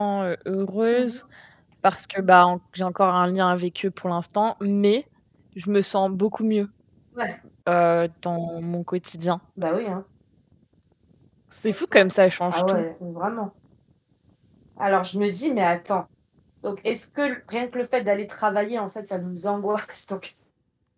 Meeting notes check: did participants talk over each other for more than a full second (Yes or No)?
No